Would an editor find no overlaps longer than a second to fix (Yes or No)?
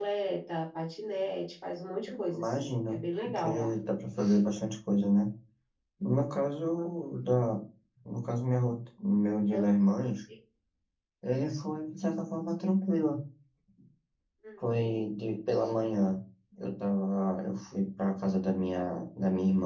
No